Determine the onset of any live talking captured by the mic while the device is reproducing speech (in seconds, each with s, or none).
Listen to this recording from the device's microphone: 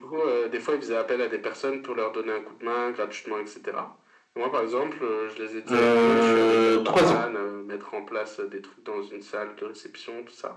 5.7 s